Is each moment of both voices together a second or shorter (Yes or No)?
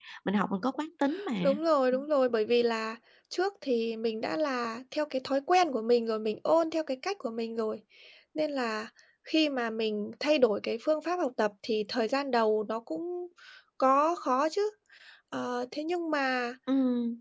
Yes